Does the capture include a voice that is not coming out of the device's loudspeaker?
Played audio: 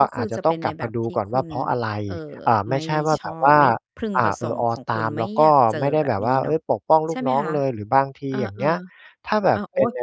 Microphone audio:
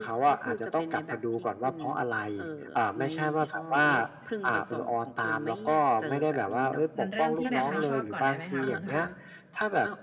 Yes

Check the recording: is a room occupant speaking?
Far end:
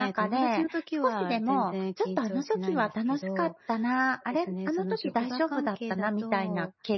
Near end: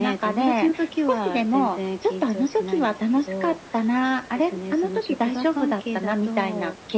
No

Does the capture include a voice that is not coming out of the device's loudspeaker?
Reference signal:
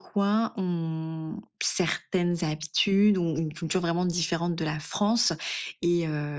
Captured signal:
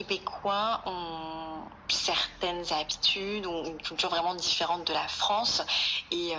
No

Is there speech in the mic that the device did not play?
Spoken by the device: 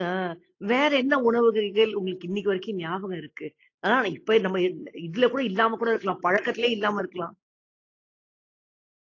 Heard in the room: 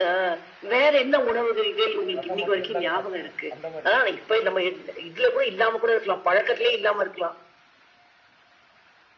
Yes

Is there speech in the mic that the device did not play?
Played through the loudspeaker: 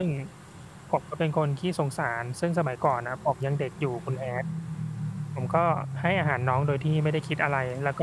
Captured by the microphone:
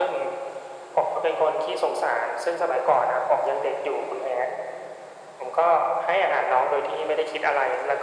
No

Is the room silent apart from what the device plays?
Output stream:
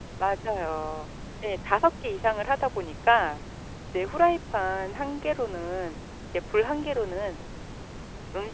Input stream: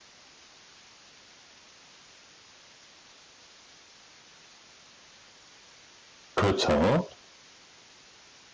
No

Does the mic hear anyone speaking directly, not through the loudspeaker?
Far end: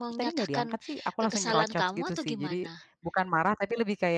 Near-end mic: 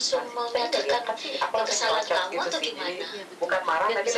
Yes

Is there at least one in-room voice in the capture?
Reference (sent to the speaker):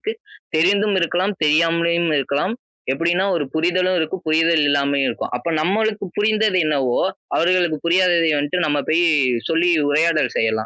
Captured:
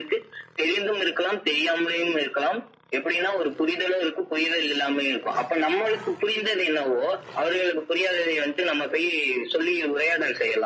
No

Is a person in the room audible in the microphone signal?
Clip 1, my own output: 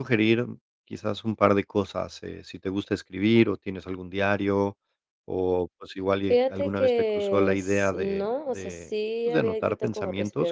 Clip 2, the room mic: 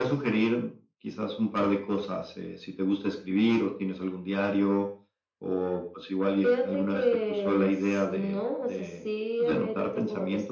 No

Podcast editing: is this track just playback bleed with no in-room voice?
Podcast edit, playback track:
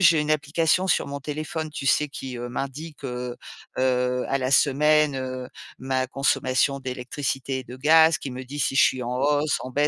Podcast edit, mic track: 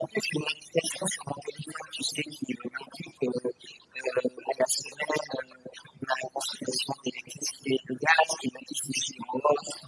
Yes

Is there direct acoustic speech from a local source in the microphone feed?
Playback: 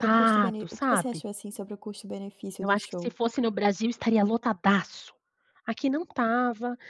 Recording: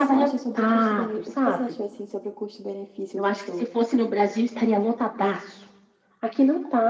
No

